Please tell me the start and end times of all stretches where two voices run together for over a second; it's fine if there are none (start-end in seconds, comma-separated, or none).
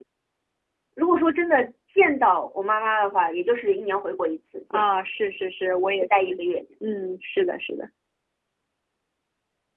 none